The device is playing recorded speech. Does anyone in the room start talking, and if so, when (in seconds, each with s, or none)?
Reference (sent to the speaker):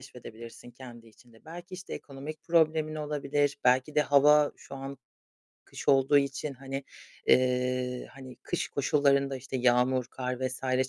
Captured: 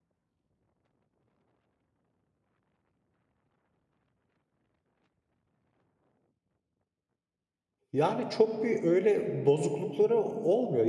7.9 s